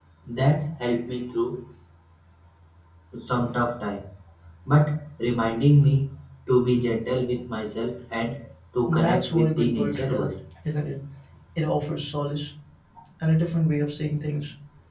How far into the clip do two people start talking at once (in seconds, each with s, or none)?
8.9 s